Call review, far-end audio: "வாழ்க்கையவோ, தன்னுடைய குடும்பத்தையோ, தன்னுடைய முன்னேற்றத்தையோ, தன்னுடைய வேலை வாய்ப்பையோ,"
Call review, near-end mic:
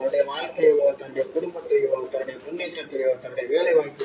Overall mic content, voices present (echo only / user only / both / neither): echo only